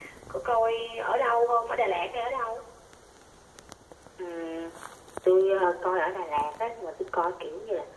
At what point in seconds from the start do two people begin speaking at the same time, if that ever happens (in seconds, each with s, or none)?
none